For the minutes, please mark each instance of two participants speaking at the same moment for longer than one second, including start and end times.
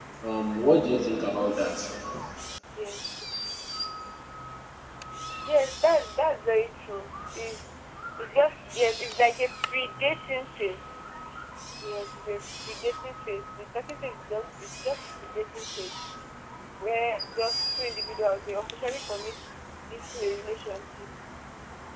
none

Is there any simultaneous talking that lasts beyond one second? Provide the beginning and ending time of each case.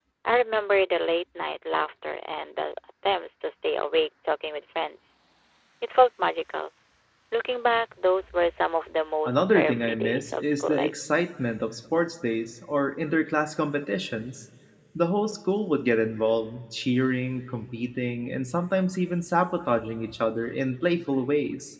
9.2-10.9

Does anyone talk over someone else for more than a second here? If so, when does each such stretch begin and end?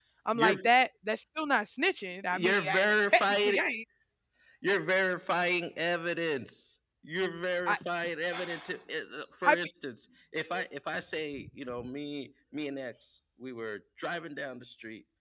2.3-3.6

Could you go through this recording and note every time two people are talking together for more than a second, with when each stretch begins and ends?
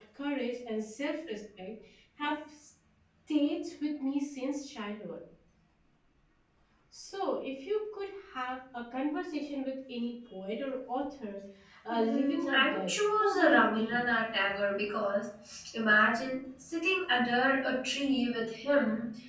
11.9-14.0

